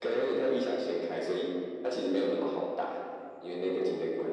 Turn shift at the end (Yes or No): No